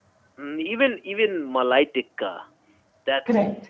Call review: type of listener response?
listening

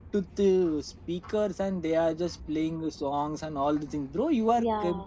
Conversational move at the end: listening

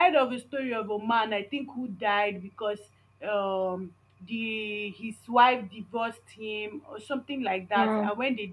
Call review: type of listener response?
listening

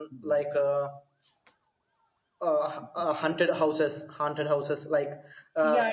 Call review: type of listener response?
taking over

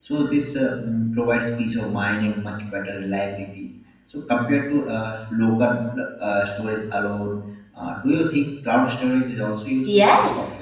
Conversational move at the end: taking over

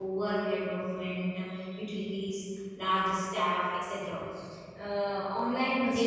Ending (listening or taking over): listening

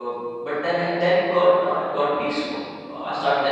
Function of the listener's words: listening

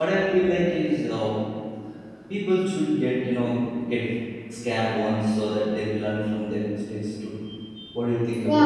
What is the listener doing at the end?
taking over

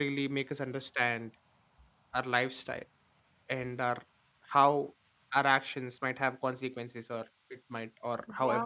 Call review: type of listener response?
taking over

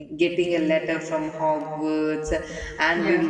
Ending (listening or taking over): listening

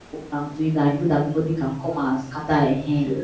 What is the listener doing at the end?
taking over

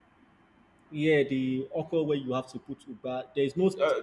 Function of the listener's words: listening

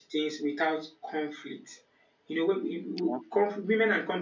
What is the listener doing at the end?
listening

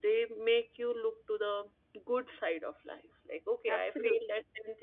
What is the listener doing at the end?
listening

